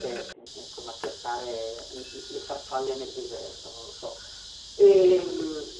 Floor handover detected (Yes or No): No